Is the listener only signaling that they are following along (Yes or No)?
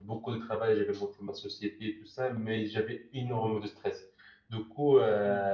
Yes